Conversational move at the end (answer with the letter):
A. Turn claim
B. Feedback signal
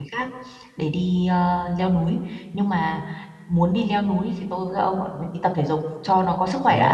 A